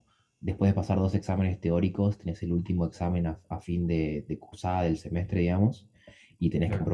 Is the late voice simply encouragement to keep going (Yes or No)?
Yes